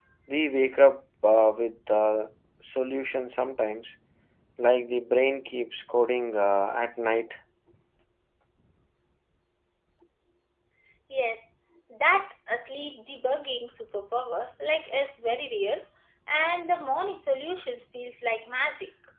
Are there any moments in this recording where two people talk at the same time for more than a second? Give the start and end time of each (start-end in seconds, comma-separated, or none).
none